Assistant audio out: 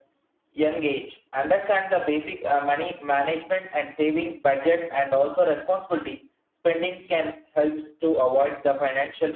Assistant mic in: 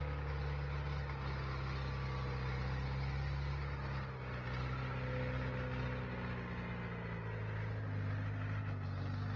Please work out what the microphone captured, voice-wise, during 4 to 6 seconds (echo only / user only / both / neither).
neither